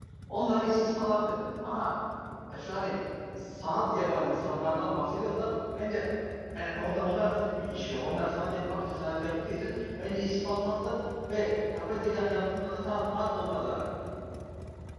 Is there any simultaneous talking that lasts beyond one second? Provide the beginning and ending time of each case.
none

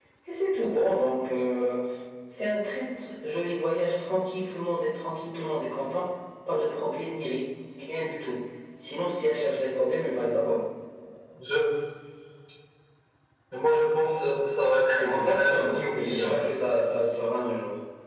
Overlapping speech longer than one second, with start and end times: 15.0-16.4

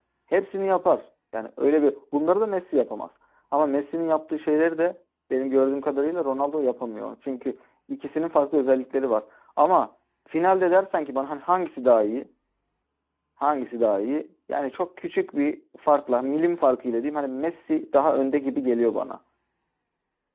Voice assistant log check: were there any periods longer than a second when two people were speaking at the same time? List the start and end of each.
none

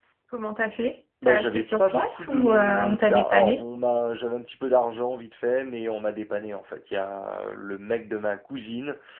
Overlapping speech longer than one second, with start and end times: 1.3-3.6

